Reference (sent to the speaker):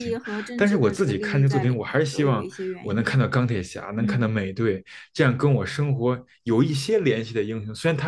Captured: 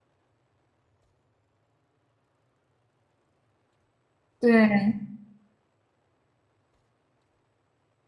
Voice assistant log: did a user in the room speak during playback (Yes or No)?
Yes